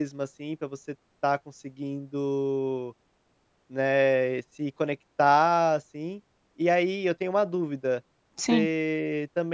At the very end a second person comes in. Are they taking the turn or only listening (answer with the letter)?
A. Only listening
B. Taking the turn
A